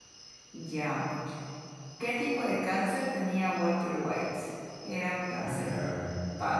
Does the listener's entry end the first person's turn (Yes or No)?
No